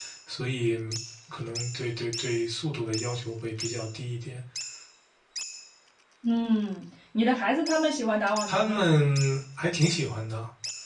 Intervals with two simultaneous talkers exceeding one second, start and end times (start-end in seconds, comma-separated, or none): none